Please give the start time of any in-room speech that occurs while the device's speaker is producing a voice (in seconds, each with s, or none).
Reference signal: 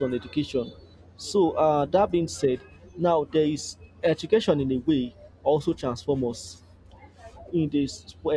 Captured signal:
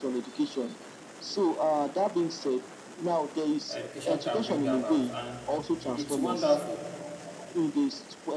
3.7 s